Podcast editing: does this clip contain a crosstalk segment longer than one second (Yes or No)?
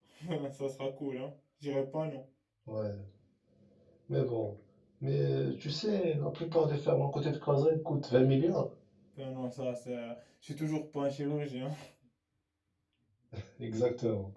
No